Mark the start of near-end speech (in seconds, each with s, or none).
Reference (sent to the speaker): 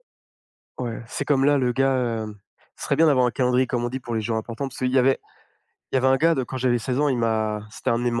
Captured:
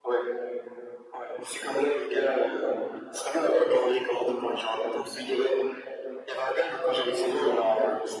none